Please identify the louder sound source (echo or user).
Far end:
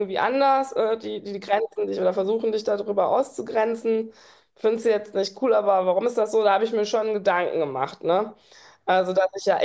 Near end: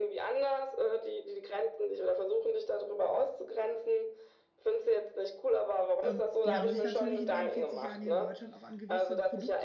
echo